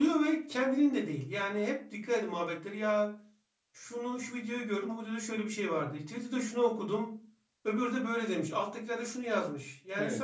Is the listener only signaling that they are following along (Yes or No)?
Yes